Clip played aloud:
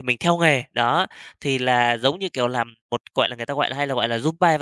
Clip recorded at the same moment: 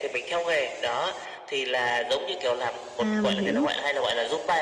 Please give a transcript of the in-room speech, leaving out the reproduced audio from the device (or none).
À, mình hiểu.